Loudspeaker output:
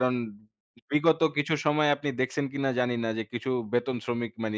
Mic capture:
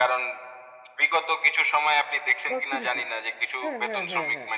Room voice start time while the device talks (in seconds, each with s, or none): 2.5 s